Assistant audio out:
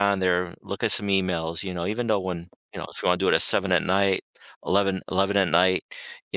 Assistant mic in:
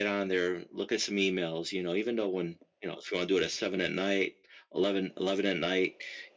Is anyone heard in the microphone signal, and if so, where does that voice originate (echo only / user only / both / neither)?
echo only